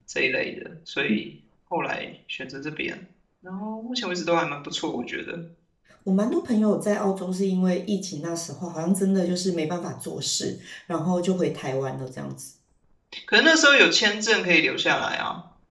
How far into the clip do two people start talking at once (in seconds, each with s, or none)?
none